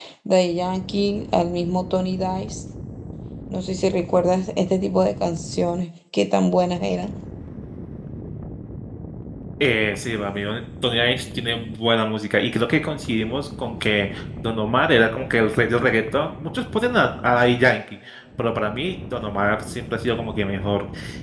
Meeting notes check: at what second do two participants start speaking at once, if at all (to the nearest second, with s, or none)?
none